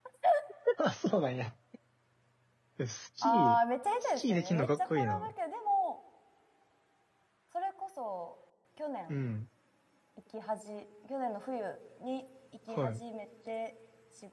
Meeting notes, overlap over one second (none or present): present